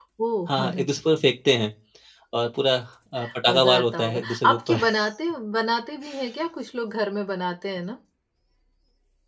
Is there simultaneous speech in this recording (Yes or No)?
Yes